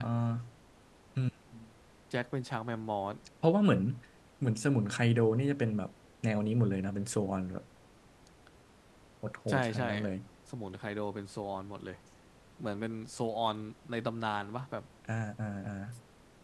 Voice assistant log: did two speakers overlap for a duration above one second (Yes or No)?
No